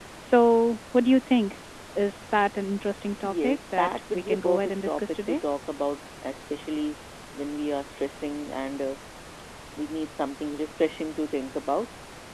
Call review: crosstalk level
present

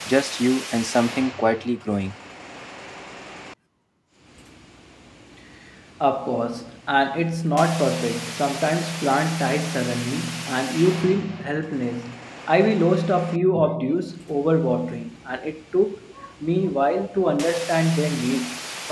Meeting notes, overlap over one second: none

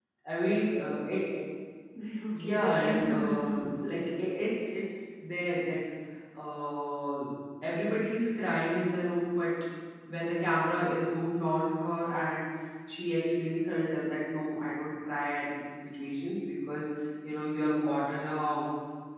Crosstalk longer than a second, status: present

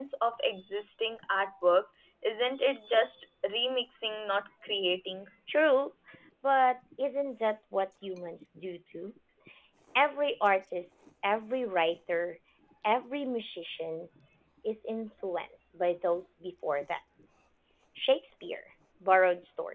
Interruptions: none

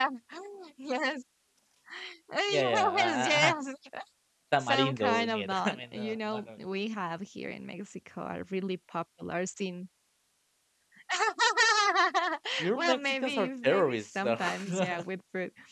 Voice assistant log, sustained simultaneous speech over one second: present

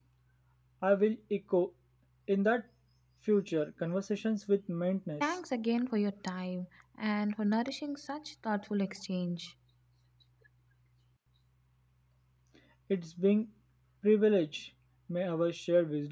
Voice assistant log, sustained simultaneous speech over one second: none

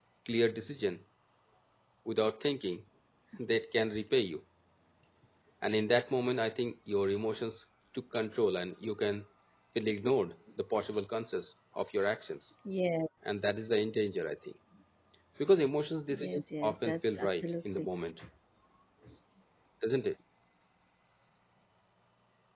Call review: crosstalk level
present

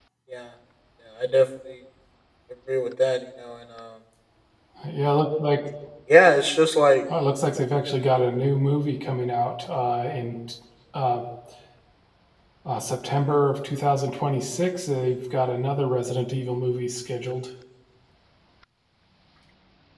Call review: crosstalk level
none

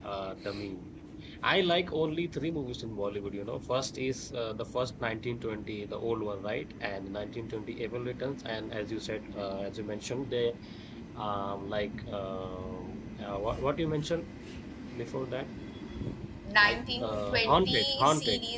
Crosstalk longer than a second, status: present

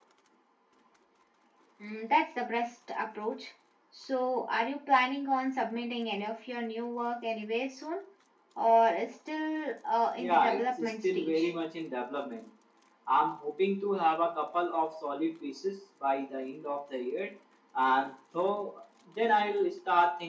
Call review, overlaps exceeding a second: present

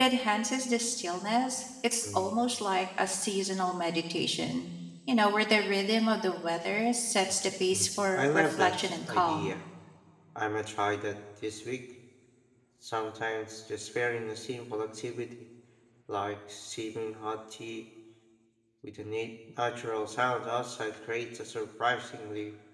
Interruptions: present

